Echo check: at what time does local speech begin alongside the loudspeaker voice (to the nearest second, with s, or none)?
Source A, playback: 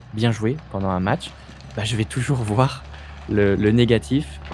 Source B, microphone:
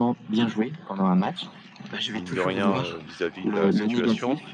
2 s